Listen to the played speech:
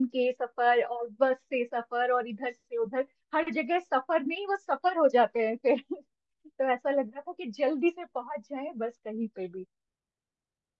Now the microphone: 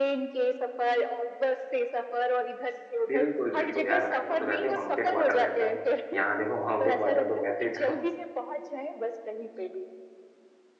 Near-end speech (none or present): present